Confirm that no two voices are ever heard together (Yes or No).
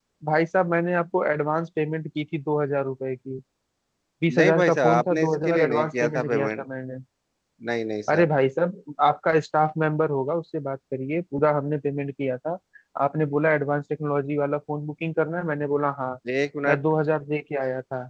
No